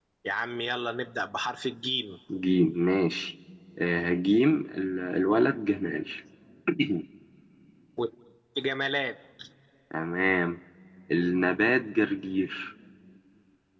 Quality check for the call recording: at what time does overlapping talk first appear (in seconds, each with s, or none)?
none